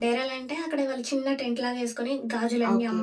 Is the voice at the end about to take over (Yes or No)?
No